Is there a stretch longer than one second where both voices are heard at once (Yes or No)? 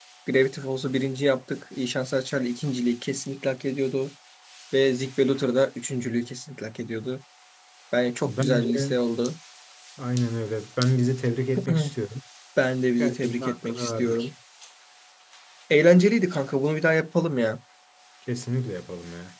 Yes